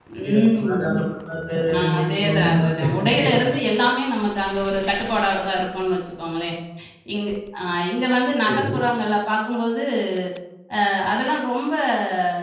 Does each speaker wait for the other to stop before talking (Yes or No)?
No